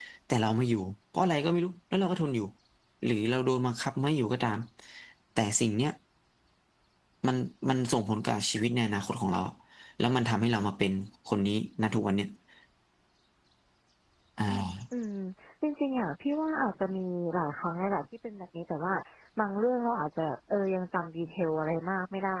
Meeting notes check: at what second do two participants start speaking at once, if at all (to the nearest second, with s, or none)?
none